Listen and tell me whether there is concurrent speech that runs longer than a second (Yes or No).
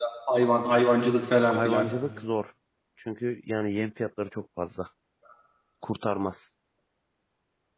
No